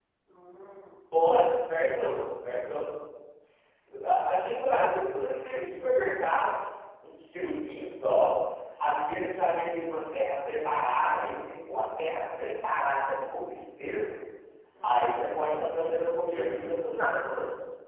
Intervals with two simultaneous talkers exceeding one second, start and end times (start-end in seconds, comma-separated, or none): 14.8-17.1